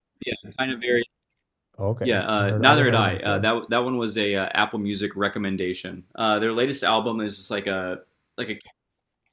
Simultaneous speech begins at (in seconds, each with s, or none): 2.0 s